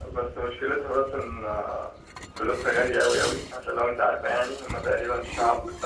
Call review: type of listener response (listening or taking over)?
listening